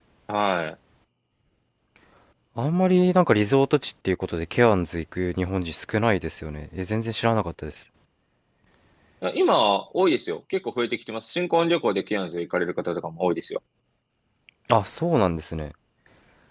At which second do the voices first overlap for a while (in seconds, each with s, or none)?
none